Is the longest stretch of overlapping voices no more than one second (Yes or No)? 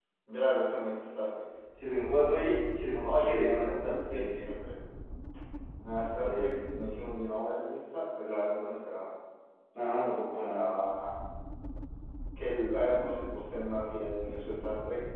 No